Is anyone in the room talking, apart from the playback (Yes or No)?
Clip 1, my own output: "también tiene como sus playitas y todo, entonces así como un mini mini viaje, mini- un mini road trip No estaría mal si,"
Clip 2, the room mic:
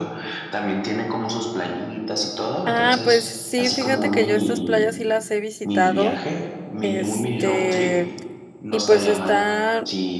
Yes